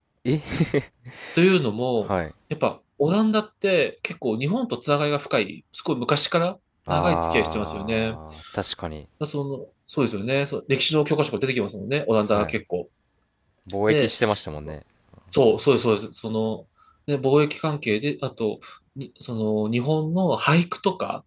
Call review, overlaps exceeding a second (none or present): present